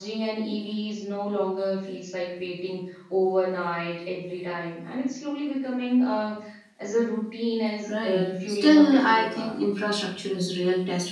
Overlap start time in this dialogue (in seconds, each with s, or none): 7.9 s